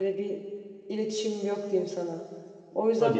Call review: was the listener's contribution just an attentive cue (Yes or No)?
Yes